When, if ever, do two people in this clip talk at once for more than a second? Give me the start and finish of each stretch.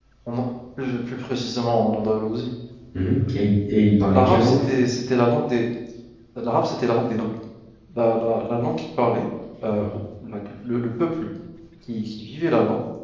none

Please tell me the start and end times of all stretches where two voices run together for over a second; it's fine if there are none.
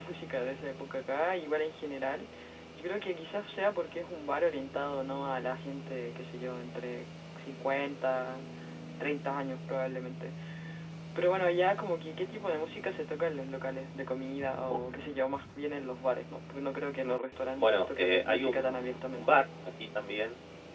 17.6-19.2

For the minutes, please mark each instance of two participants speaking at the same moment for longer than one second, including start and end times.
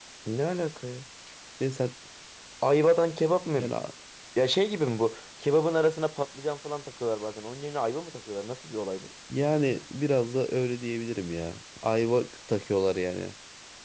none

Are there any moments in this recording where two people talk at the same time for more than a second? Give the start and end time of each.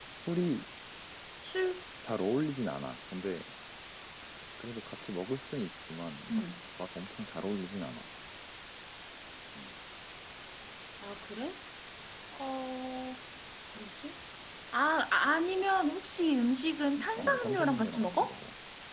17.1-18.4

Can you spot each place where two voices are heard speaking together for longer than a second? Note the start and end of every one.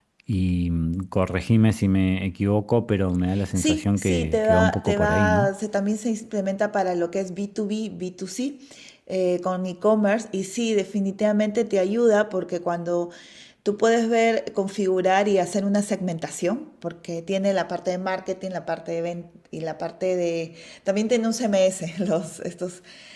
3.6-5.5

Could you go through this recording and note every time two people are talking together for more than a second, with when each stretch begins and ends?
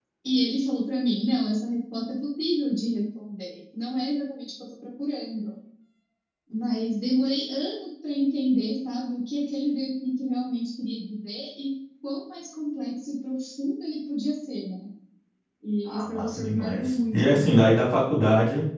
15.9-17.7

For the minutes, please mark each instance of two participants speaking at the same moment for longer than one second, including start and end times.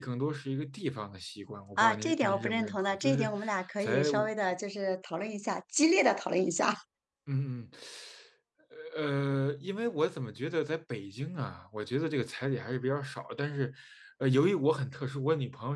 1.8-3.3

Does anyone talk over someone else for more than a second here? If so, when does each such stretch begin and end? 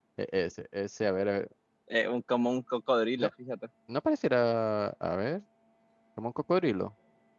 none

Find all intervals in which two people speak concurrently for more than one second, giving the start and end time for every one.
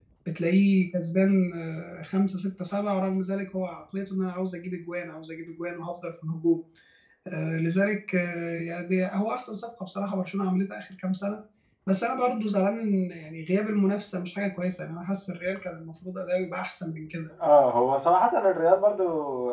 none

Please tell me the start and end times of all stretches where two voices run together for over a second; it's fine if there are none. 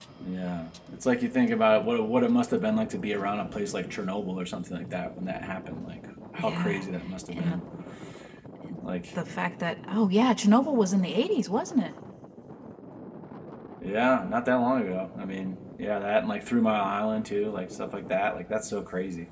none

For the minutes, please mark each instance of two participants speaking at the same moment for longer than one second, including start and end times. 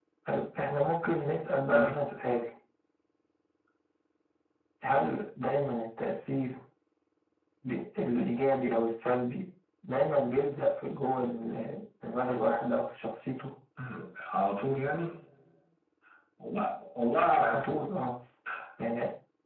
none

